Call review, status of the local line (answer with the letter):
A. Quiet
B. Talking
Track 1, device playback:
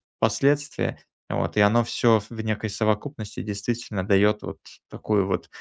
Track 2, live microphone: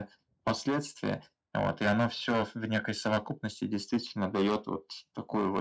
A